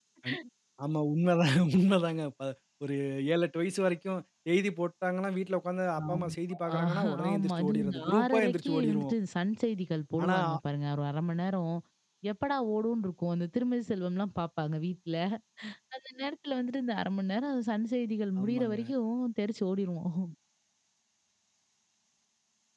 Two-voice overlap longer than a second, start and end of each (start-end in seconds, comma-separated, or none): 6.8-9.1